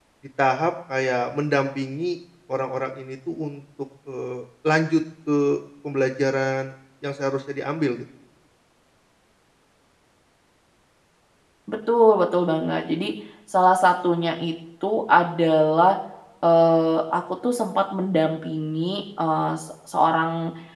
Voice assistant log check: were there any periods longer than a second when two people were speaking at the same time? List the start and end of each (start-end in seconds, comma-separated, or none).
none